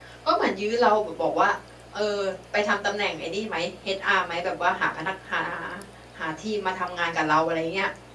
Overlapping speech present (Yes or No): No